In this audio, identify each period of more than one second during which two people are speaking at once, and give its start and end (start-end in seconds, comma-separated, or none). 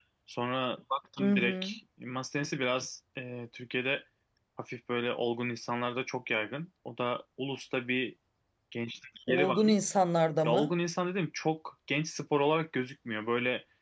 none